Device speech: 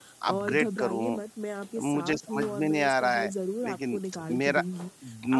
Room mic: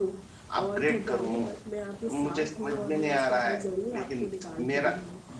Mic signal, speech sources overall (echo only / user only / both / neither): echo only